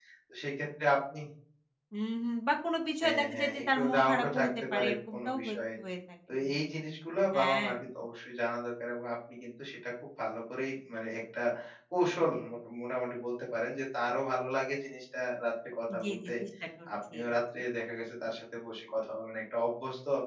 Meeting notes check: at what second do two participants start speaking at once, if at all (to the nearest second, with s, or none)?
3 s